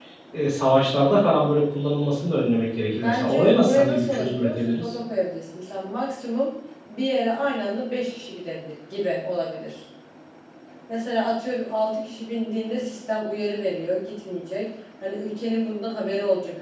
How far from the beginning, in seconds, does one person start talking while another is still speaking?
2.9 s

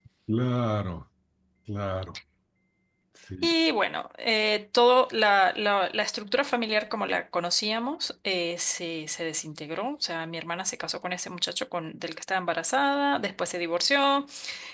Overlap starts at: none

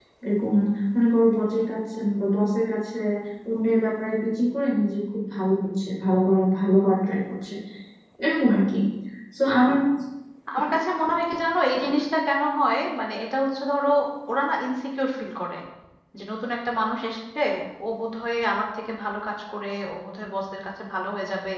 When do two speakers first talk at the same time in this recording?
none

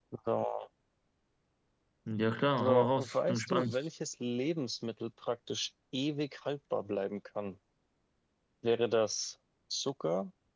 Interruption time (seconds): 2.5 s

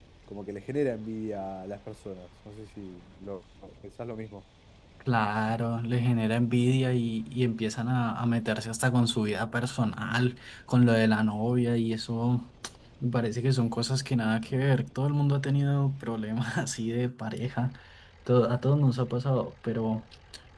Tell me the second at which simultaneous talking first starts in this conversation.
none

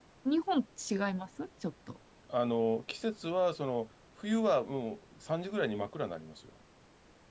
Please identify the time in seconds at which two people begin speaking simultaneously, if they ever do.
none

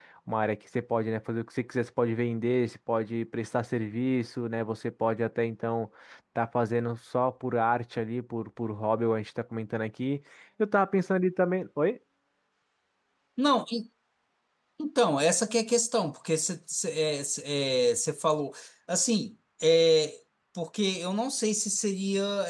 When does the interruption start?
none

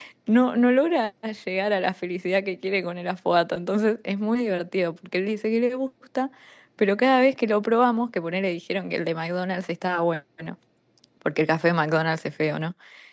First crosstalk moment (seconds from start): none

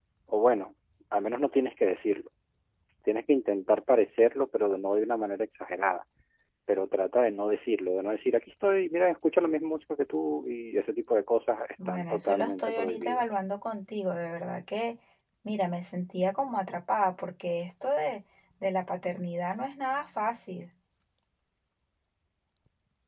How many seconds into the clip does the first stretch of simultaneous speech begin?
11.8 s

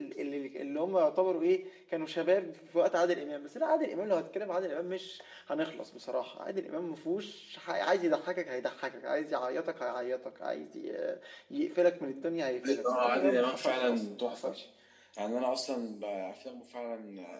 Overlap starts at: 12.6 s

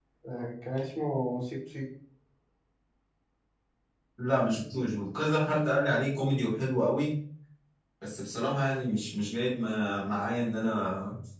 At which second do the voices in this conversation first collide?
none

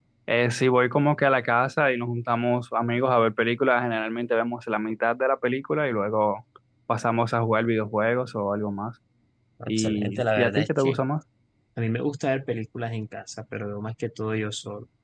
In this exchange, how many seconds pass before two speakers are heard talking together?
9.7 s

